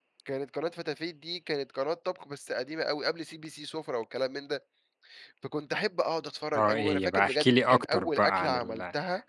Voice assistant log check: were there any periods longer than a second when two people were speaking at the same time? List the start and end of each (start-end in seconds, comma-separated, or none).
6.5-8.8